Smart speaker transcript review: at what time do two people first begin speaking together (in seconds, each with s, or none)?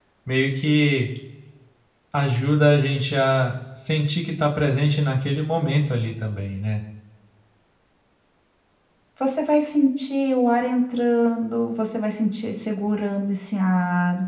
none